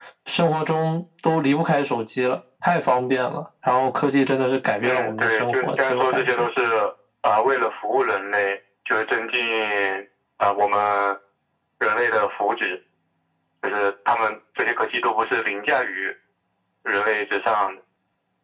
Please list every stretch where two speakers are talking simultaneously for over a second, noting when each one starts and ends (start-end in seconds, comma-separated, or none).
4.8-6.5